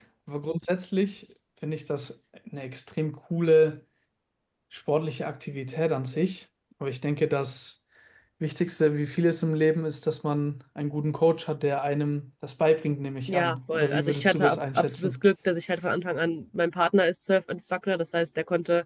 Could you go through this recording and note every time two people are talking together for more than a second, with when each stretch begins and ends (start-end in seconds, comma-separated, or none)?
13.3-15.2